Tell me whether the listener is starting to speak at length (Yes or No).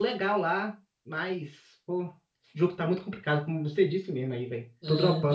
Yes